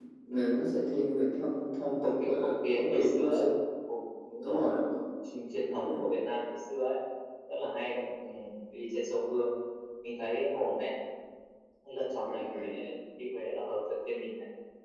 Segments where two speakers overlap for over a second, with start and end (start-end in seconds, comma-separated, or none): 2.0-3.4